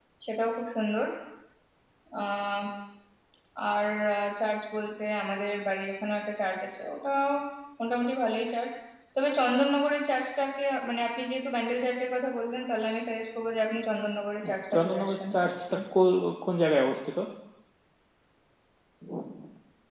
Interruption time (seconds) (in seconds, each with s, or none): 14.4 s